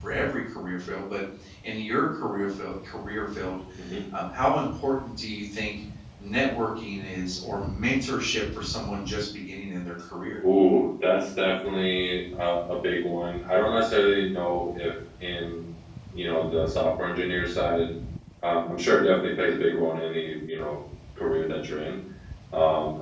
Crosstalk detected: No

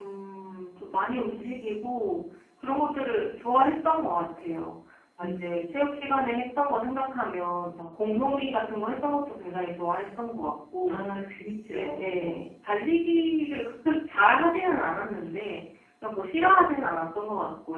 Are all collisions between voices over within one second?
No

